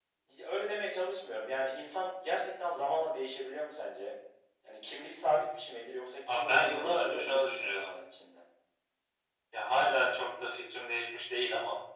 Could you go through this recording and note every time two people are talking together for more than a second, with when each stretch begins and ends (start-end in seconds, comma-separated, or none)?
6.3-8.0